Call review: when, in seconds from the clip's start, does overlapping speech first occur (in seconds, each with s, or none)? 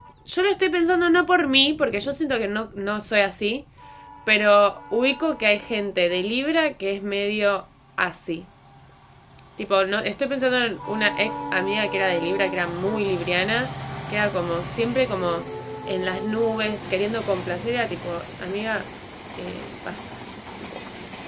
none